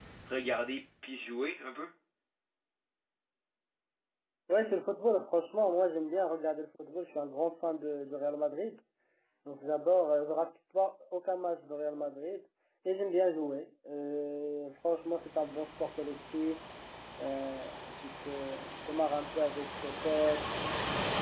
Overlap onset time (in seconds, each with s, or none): none